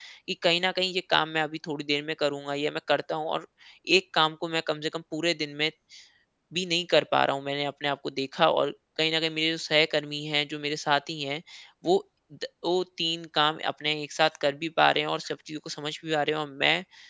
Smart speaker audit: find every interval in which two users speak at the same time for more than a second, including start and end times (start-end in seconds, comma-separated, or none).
none